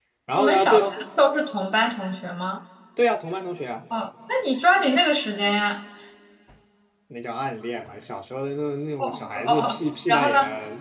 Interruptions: present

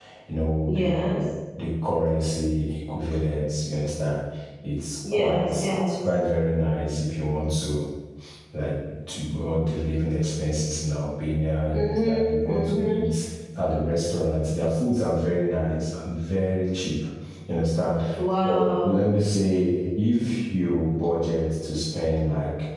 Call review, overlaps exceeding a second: present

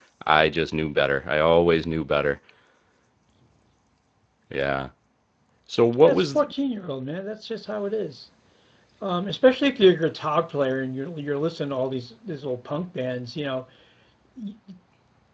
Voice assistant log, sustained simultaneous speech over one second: none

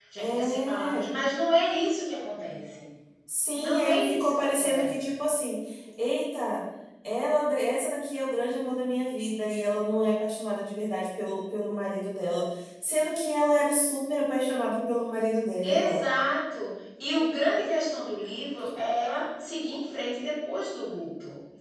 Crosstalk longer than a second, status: present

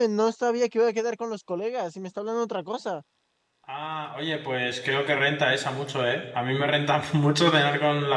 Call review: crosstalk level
none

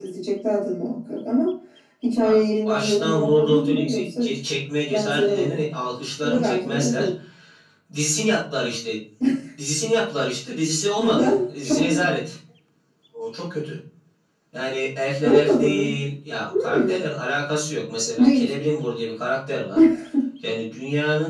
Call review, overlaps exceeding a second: present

